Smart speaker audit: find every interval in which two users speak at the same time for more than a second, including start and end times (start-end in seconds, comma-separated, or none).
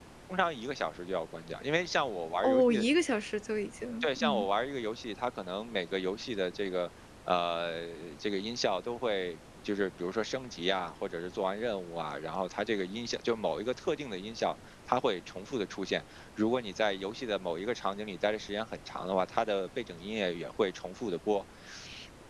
none